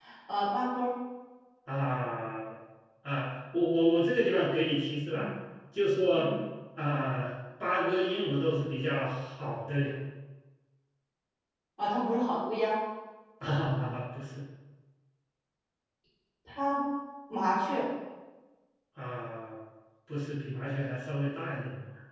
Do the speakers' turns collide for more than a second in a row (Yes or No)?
No